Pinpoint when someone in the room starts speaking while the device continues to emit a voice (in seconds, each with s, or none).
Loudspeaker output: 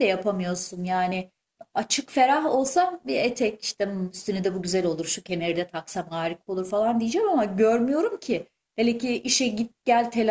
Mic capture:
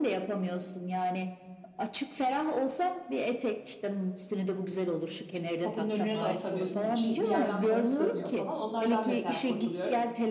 5.6 s